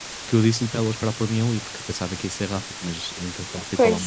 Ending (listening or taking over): listening